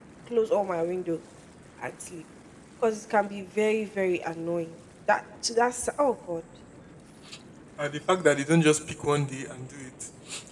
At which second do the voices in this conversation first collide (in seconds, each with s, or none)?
none